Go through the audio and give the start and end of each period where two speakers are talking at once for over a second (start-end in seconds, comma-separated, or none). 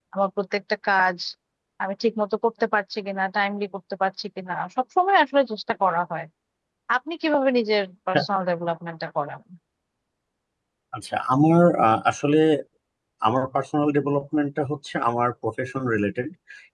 none